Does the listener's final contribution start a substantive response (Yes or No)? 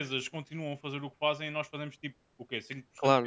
Yes